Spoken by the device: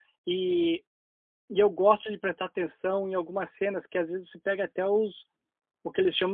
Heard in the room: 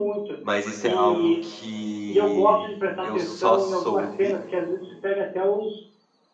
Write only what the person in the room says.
Mas isso é algo que eu só soube

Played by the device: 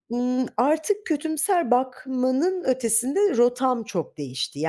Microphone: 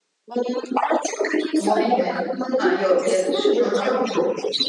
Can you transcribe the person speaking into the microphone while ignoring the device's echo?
Mobbing mi? Ha, yok, yarış. Hı hı. Hımm.

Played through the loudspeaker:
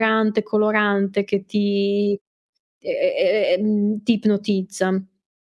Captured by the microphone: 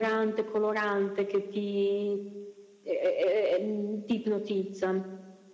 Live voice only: none

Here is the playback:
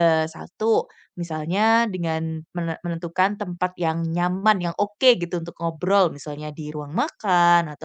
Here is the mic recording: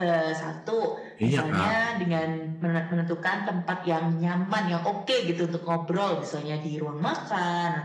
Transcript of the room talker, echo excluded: Iya, Kak.

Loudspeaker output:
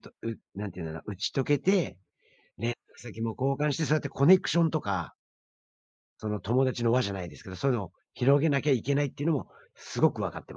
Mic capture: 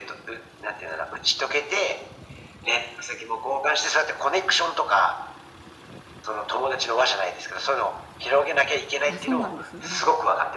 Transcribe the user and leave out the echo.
あ、そうなんですね。

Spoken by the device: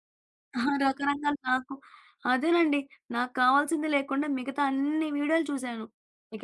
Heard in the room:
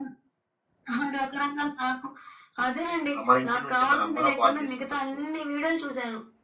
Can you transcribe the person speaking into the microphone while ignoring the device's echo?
ఆహ్, మన ఇంటి నుండి మన అమ్మనో కాల్ చేసి ఉండొచ్చు.

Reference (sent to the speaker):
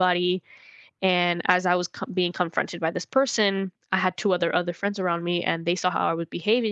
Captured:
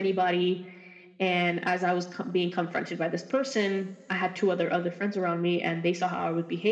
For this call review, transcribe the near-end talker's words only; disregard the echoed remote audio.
none

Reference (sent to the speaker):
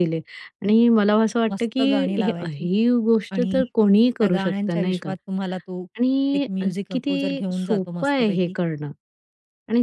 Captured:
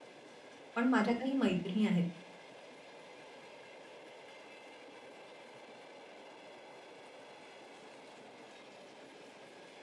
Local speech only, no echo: पण माझ्या काही मैत्रिणी आहेत,

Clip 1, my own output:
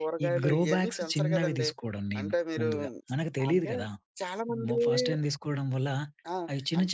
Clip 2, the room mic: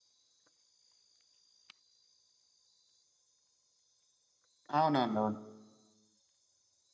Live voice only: అవునవునవును.

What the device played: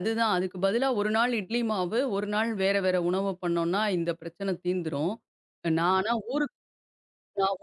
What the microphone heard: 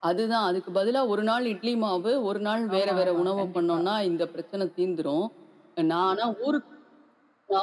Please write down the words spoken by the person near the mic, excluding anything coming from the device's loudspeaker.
ஆமா, ஆமா. கண்டிப்பா.

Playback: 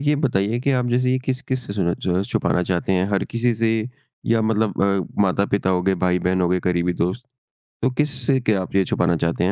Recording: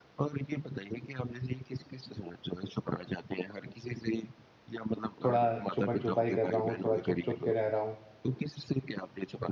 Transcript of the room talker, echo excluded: थोड़ा छुपन-छुपाई कर रहा हूँ, थोड़ा छुप-छुप के रह रहा हूँ।

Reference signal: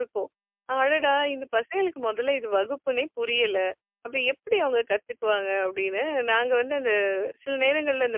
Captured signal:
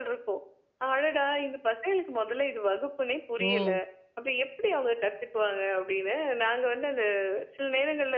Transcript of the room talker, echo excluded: ஓ!

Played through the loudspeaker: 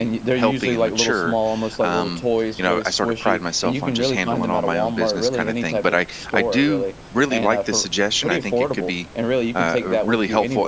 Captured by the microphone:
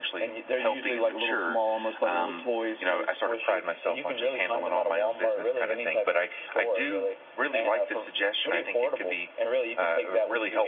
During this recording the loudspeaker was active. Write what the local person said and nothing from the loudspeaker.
none

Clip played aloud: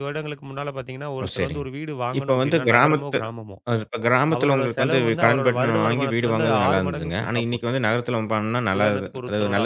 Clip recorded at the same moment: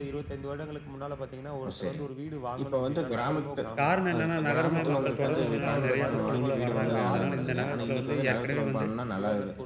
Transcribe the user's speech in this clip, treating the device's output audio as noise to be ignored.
காரணம் என்னன்னா, நகரமயமாக்கல் தொடர்ந்து வந்ததுனால நெறைய மக்கள் உள்ள வர்றாங்க. அதனால இந்த நகரத்தில வந்து ஏற்கனவே வந்து

